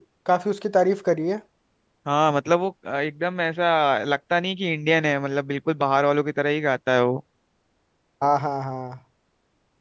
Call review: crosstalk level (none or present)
none